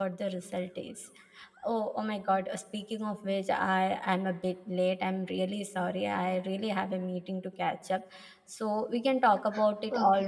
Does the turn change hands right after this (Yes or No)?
Yes